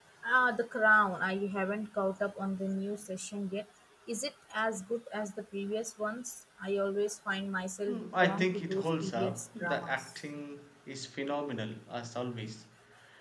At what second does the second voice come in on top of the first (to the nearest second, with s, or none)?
8 s